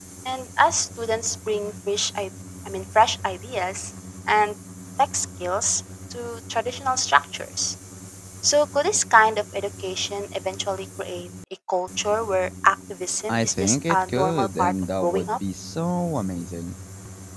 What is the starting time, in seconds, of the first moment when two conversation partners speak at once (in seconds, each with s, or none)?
13.3 s